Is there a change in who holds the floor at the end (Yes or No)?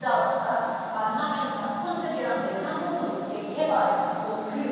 Yes